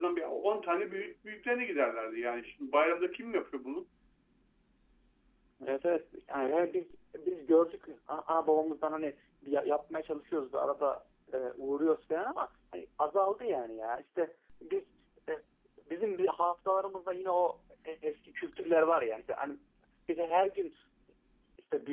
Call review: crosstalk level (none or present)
none